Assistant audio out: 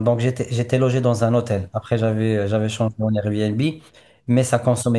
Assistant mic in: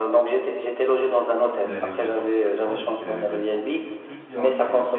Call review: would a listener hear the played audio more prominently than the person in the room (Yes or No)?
Yes